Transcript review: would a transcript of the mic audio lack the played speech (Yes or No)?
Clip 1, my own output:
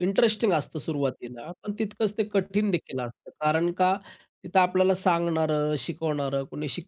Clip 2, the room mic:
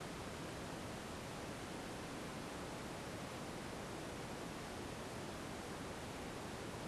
Yes